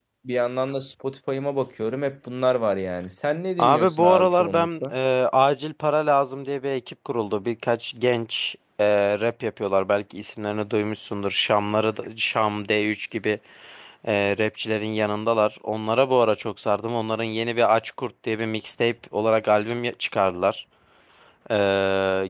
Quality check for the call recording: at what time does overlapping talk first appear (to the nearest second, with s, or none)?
4 s